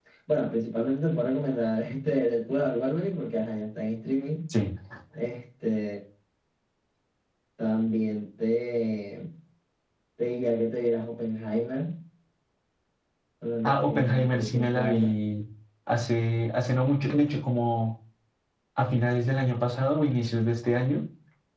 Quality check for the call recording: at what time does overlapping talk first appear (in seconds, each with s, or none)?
13.6 s